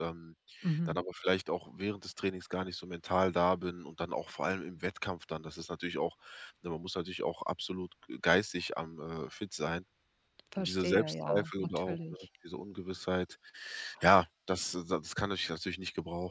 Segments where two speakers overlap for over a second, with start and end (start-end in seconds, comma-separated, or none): 10.6-12.2